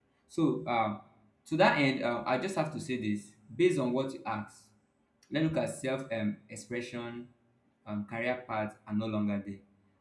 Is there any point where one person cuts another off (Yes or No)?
No